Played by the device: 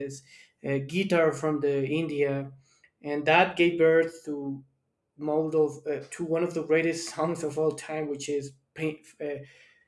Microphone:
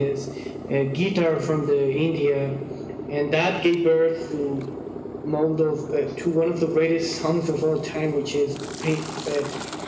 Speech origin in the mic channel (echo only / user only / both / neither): echo only